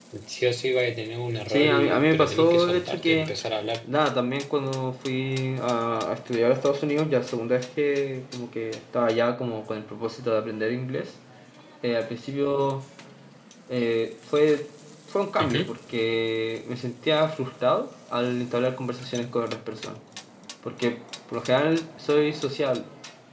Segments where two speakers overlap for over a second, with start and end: 1.5-3.3

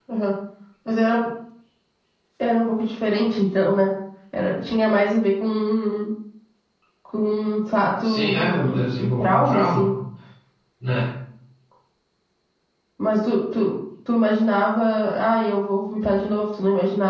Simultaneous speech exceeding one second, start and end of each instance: 8.0-9.9

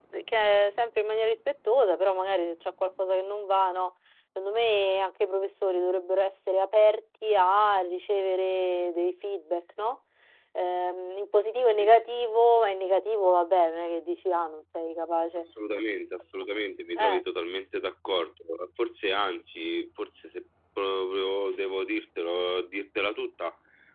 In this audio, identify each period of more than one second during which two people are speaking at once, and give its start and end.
none

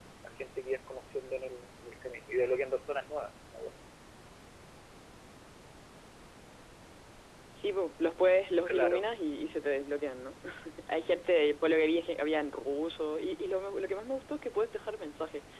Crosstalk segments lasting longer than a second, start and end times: none

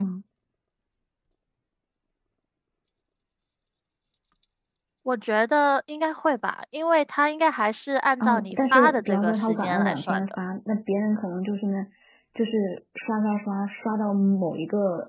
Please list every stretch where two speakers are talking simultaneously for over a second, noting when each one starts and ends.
8.2-10.2

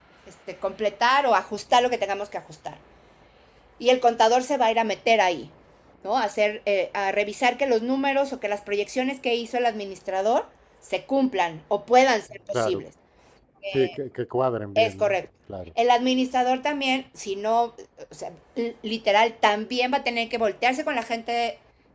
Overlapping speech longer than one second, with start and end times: none

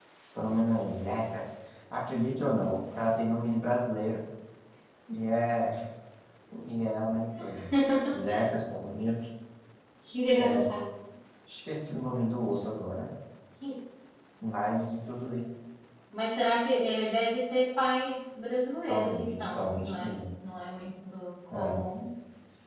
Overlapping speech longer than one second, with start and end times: 18.9-20.1

